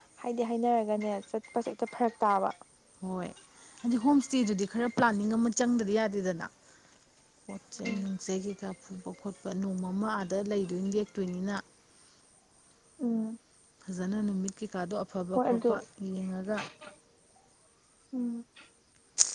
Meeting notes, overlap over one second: none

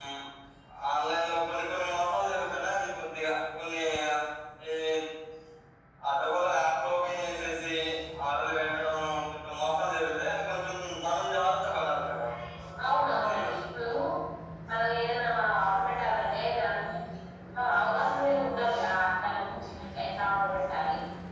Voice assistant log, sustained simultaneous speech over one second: none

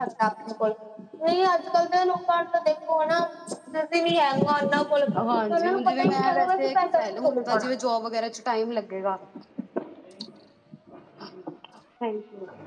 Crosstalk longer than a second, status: present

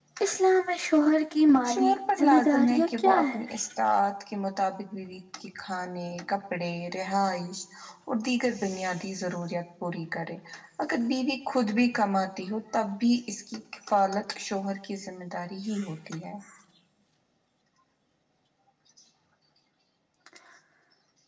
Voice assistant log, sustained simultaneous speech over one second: present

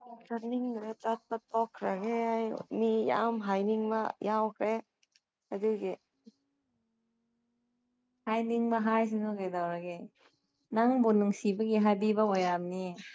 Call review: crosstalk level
none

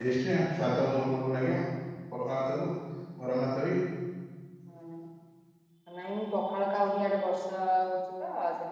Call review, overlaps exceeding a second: none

